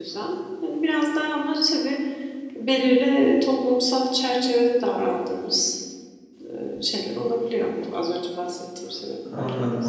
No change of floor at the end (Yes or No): No